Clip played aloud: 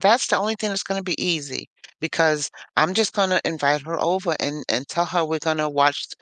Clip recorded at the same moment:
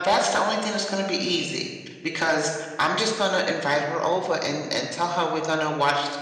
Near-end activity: none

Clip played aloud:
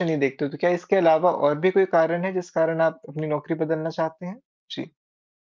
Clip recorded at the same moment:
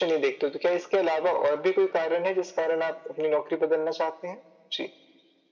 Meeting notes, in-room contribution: none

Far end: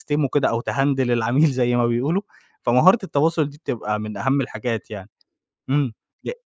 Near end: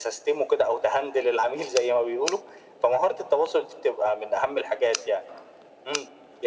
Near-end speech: none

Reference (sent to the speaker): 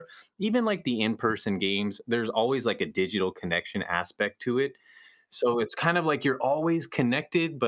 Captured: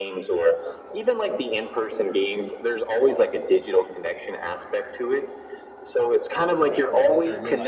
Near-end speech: present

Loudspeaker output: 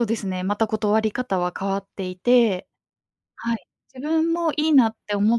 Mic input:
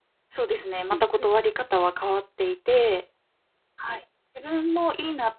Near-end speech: present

